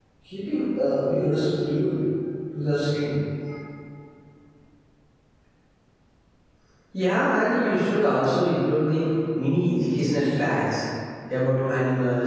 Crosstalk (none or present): none